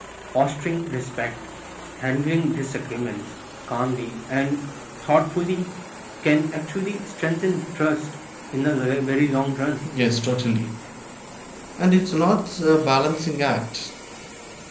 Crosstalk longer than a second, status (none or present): none